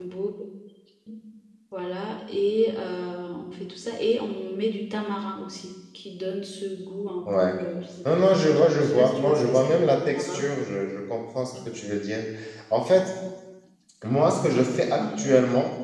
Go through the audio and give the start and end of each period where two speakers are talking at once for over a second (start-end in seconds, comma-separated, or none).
8.1-10.4